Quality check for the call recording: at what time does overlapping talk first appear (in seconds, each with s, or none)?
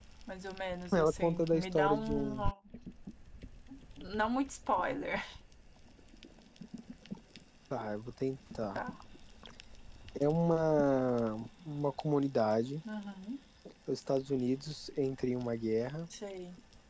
0.9 s